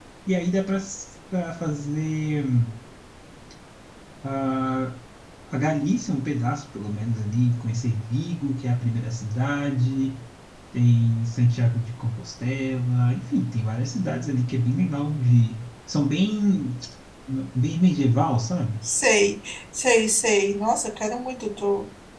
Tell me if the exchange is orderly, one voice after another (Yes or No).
Yes